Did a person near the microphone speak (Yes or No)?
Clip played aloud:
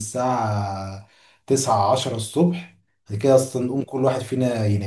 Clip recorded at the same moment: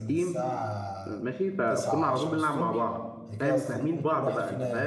Yes